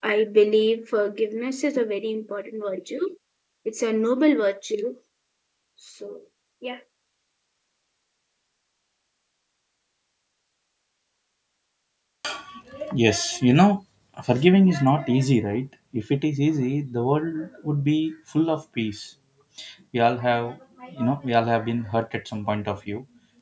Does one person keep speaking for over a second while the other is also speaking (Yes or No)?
No